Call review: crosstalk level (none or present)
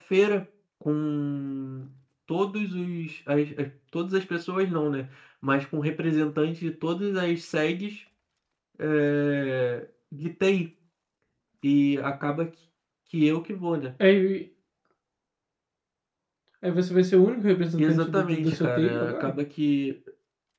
present